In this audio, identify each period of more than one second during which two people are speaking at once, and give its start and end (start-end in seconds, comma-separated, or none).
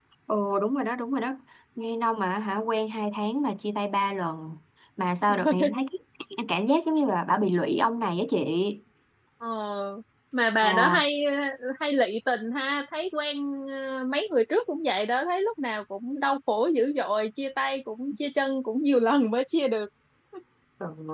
none